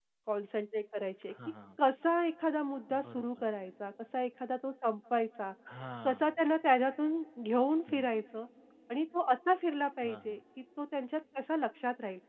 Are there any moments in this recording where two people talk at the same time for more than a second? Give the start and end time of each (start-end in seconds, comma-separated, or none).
none